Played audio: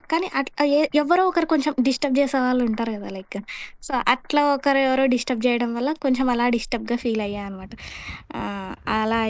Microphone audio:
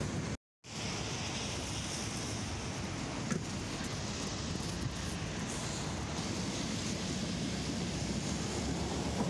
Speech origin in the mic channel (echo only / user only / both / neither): neither